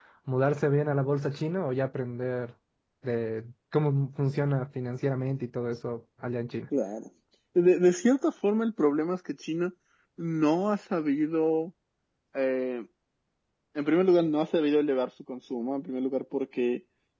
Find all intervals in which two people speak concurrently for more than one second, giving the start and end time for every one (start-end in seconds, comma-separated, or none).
none